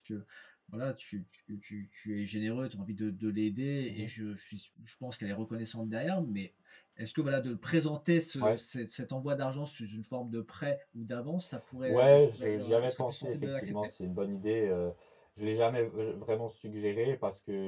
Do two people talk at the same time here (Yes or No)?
Yes